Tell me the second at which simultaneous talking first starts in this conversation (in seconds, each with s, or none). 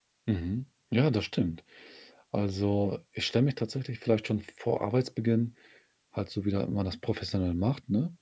none